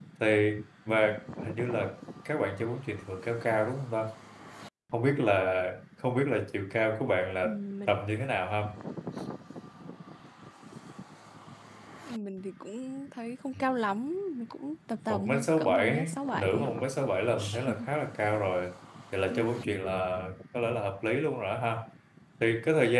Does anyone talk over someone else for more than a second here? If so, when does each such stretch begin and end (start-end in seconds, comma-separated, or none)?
15.1-16.7